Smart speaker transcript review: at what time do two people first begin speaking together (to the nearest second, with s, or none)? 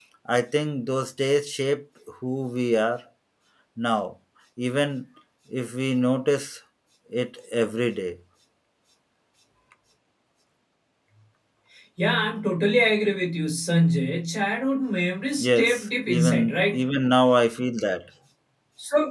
15 s